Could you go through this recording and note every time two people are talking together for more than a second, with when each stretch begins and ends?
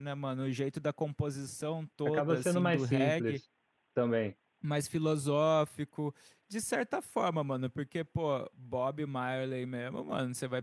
2.0-3.4

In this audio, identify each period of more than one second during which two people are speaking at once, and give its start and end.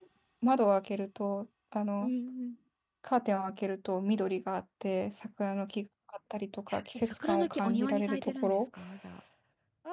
6.9-8.6

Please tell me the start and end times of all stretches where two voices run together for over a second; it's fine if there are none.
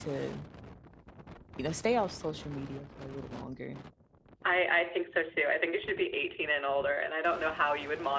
none

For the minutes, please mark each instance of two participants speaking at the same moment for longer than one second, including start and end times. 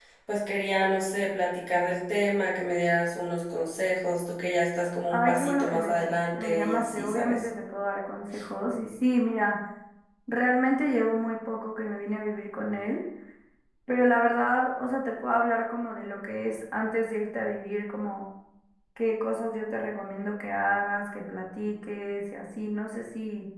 5.1-7.5

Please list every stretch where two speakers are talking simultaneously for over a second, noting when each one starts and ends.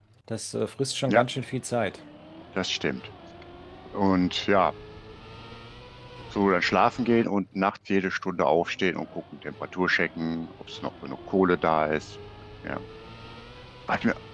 none

